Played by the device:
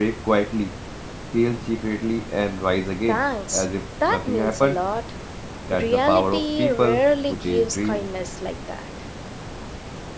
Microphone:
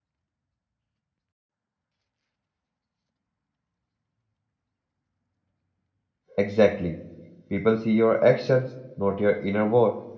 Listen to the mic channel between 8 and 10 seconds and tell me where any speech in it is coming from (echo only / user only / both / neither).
user only